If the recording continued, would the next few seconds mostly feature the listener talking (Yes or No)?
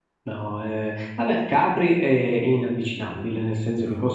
No